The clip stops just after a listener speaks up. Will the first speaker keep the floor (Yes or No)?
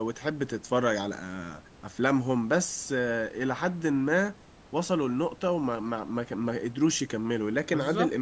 Yes